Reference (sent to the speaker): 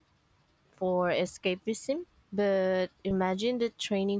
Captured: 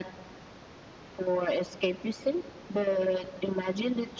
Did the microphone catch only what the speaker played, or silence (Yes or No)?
Yes